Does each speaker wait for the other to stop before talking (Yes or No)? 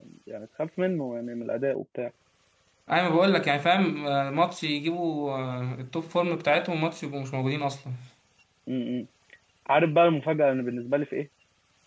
Yes